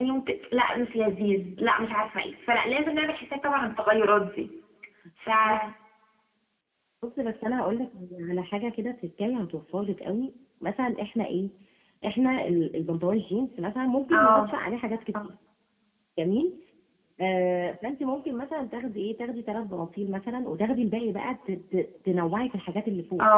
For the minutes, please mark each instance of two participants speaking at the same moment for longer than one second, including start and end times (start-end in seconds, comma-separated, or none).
none